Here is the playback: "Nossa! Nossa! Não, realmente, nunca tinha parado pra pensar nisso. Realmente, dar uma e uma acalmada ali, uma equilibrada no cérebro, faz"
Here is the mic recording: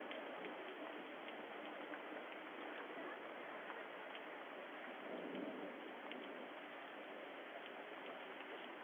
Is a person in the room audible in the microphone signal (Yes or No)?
No